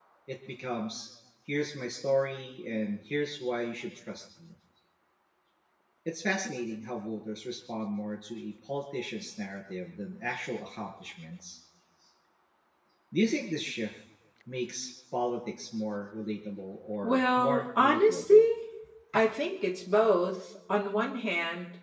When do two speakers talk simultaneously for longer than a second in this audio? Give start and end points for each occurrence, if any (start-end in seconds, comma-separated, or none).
17.0-18.4